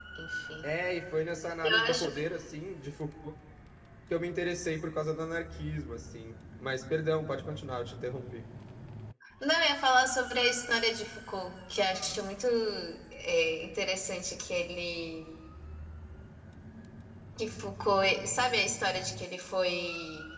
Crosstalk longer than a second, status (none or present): none